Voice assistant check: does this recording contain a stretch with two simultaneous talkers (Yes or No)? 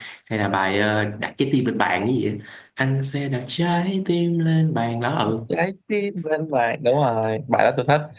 No